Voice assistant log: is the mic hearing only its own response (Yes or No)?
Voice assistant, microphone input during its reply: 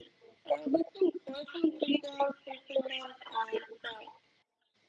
Yes